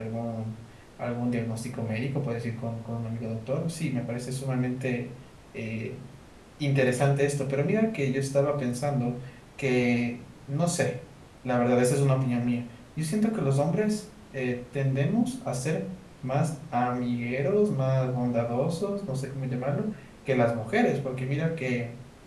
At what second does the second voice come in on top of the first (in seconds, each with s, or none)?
none